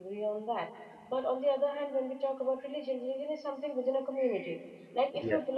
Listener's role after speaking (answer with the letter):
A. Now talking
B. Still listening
B